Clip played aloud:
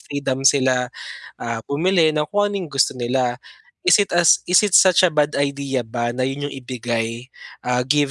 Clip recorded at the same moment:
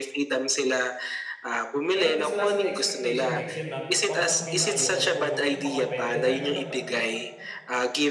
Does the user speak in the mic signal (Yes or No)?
Yes